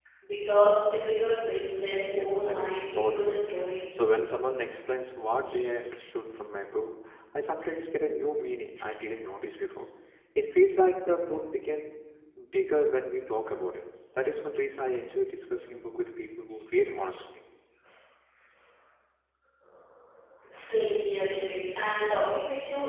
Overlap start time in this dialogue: 2.0 s

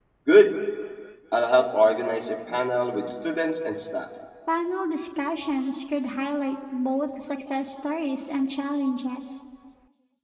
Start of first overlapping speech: none

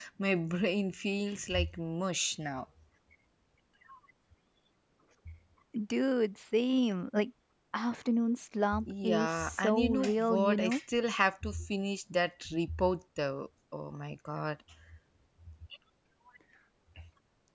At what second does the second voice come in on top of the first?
8.7 s

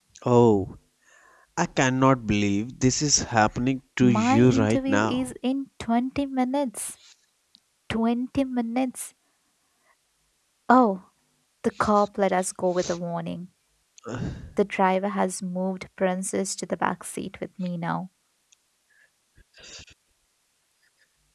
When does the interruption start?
4.0 s

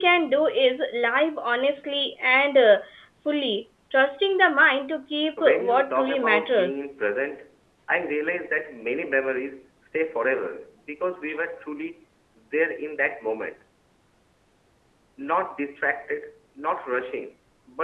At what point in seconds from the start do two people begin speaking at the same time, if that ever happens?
5.4 s

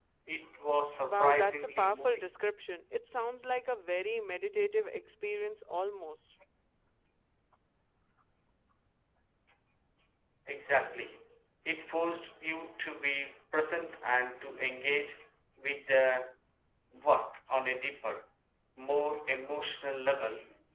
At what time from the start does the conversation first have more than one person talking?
1.0 s

